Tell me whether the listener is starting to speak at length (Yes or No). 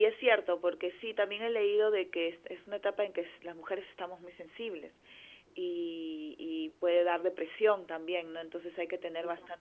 No